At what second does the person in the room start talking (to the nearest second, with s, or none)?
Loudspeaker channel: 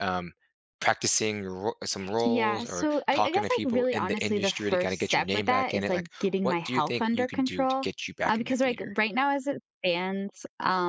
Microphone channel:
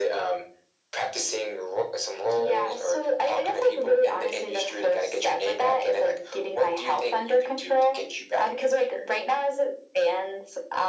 none